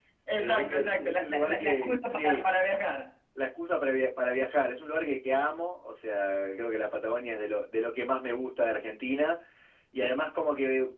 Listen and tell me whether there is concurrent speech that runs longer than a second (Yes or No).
Yes